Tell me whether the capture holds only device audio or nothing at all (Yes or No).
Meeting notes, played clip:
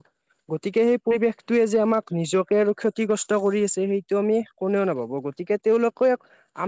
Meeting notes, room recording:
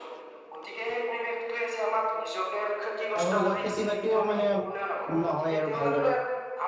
No